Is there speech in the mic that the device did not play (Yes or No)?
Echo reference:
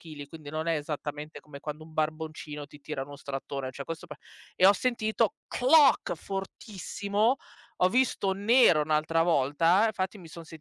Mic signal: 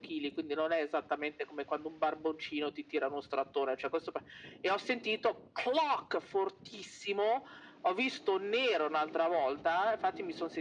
No